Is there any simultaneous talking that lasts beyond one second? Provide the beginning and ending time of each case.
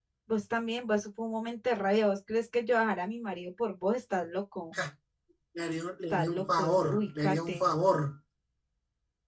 6.1-7.7

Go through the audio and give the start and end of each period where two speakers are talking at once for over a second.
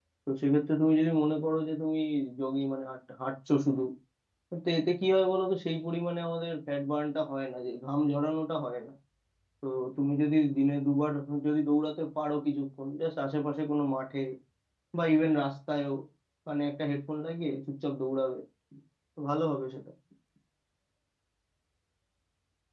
none

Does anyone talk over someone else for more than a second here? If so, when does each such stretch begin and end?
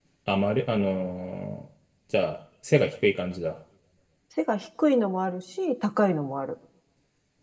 none

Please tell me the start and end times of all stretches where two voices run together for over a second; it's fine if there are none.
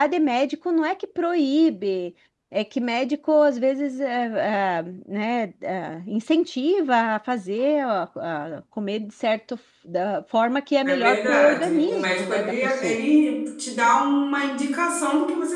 10.9-13.0

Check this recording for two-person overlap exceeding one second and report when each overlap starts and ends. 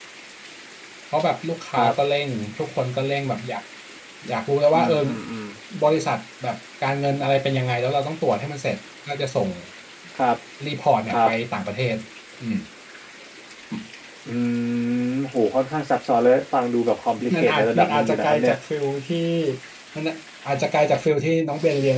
17.3-18.5

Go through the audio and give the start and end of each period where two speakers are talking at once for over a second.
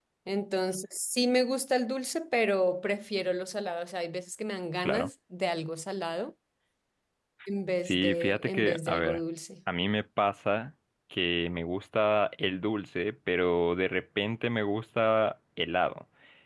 7.8-9.2

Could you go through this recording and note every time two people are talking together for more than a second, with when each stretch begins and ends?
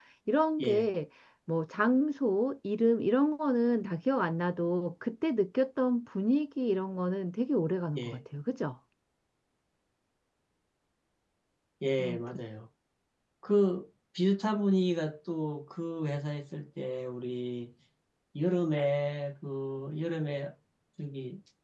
none

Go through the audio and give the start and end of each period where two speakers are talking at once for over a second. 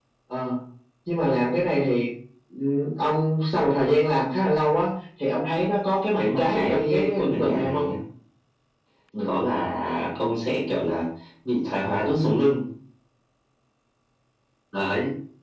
6.2-7.9

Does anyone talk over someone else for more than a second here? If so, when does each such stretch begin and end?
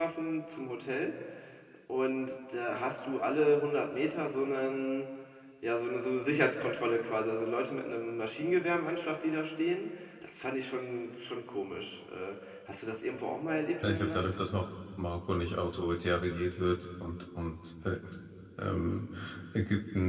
none

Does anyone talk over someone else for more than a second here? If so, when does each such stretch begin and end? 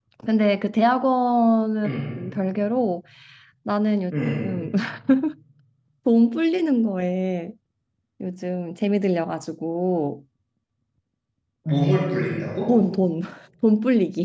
none

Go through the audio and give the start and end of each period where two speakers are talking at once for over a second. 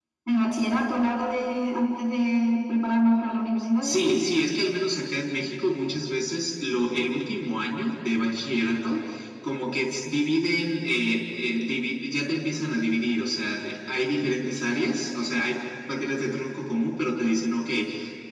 none

